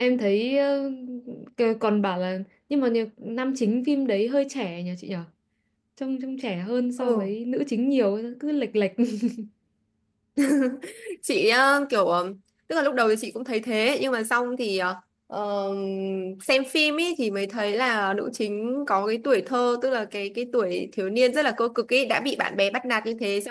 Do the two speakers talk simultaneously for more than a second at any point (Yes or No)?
No